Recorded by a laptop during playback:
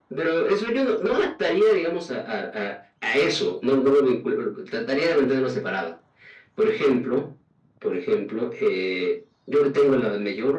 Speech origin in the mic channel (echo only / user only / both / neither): echo only